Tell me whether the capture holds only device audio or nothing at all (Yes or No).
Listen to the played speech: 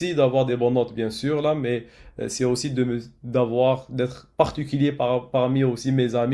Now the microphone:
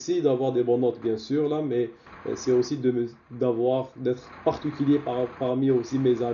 Yes